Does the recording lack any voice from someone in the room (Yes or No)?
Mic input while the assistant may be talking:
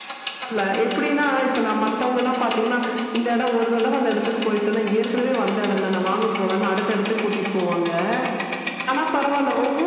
Yes